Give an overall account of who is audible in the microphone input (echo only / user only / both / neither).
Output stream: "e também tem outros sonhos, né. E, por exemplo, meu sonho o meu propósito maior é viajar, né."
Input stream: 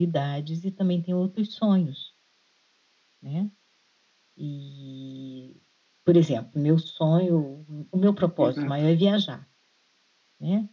both